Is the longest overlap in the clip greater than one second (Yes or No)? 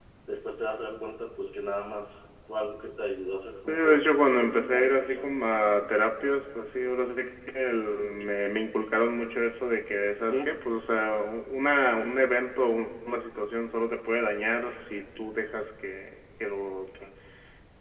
Yes